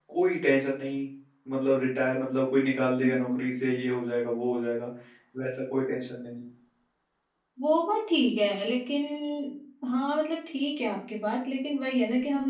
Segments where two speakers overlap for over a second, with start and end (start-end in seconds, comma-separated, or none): none